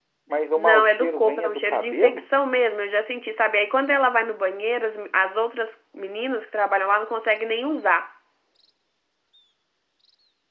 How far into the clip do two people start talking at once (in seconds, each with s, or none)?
0.6 s